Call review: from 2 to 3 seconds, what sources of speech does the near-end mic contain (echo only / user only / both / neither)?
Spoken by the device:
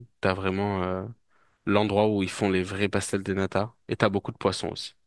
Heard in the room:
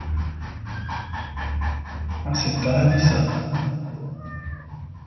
user only